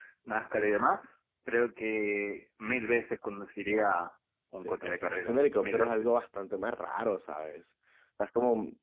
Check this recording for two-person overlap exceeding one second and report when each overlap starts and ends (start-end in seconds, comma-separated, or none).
4.6-6.1